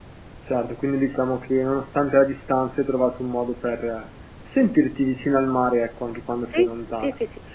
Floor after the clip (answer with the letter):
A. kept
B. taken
B